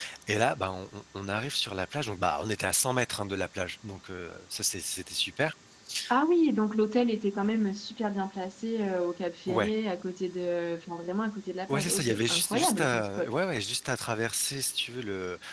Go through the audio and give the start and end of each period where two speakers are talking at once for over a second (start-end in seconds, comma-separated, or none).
11.7-13.3